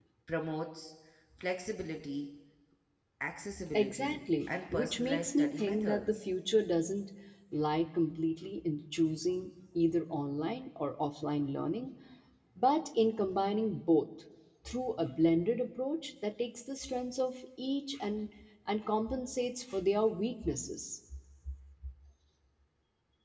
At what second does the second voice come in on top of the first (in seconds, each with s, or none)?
3.7 s